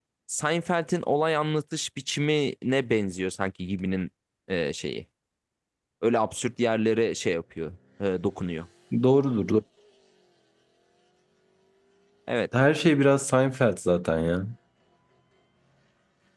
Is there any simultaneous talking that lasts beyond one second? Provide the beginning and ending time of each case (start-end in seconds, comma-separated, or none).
none